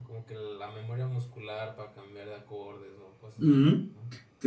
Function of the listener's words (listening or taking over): taking over